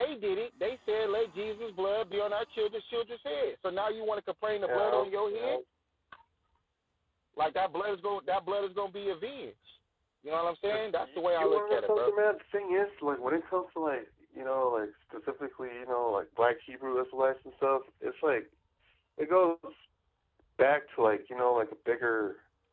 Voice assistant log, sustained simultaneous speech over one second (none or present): present